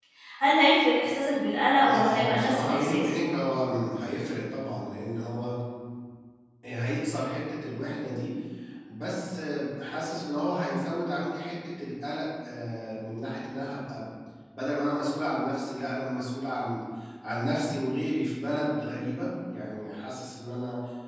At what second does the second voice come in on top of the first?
1.8 s

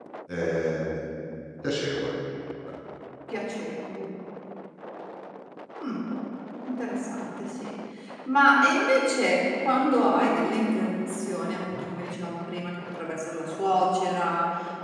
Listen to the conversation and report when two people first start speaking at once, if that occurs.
none

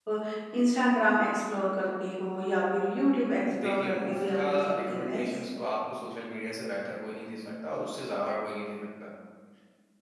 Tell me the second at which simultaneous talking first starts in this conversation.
3.5 s

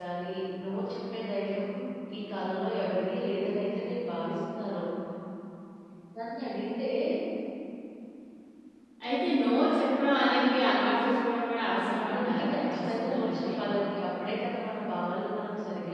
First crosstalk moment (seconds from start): 11.9 s

